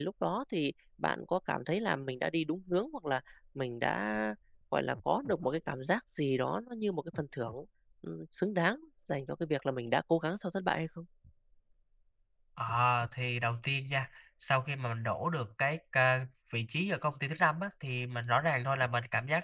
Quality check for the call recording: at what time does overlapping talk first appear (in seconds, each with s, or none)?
none